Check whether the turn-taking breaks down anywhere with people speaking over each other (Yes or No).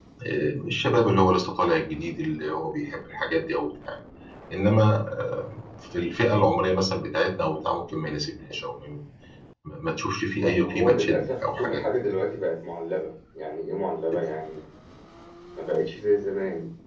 Yes